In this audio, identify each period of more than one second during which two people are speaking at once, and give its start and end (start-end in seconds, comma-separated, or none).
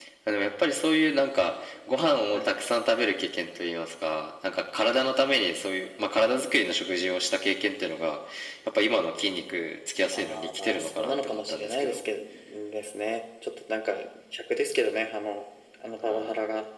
10.1-12.0